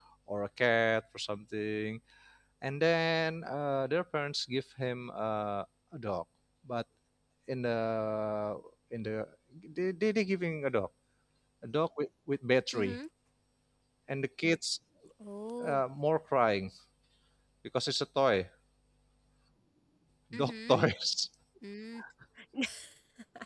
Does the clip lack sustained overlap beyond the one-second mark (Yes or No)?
Yes